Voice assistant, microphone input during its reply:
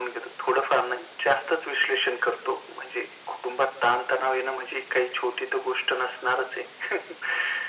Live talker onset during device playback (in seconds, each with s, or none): none